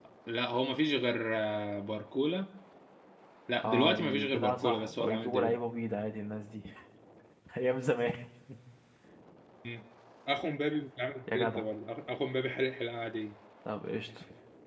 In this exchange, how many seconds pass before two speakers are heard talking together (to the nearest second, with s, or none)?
4 s